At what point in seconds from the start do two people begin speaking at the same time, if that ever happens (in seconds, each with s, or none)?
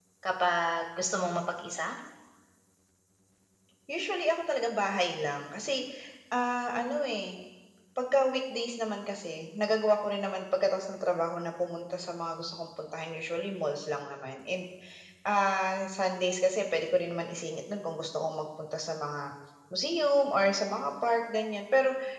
none